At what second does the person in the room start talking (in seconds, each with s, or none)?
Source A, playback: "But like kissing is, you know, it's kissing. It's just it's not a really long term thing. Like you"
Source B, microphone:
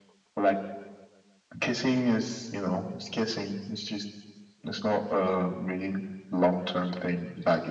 none